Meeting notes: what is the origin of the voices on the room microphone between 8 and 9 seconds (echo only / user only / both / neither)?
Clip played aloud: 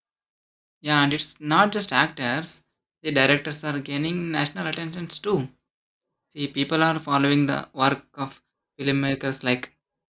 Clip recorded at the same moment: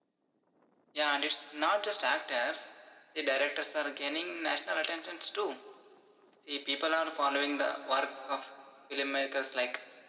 echo only